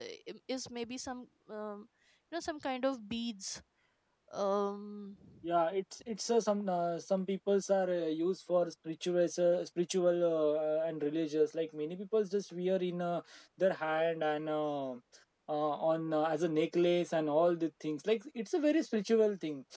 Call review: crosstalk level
none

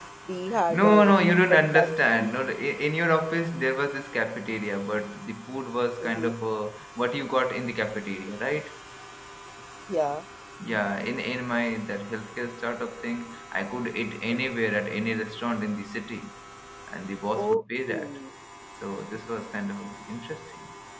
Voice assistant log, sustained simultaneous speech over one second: present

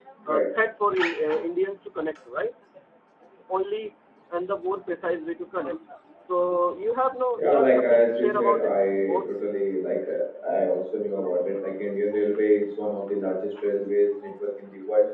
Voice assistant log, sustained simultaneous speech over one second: present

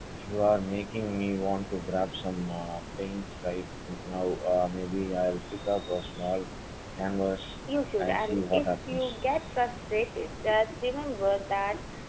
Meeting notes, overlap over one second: present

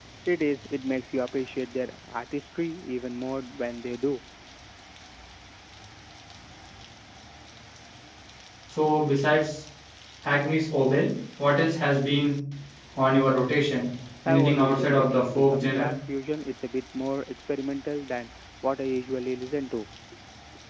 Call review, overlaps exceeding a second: present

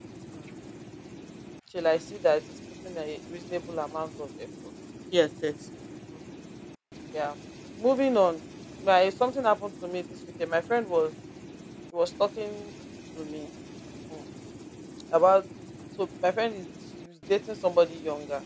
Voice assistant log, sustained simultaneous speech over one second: none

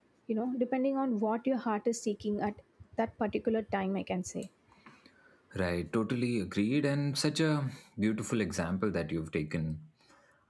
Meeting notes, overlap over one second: none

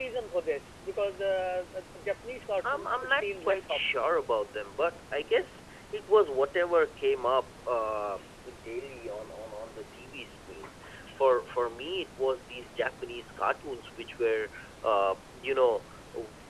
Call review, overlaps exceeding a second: present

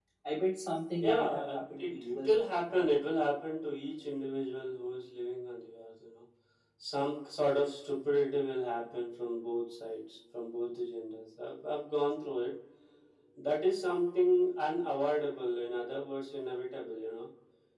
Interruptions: present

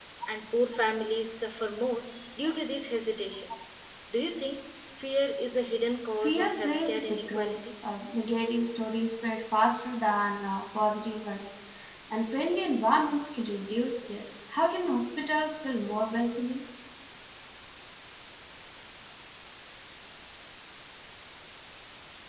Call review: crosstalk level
present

